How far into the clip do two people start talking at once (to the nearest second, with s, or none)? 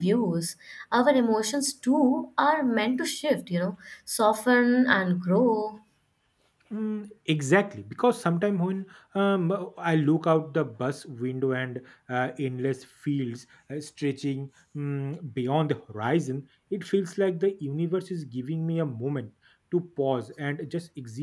none